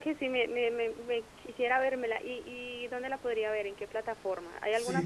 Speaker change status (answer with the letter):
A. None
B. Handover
B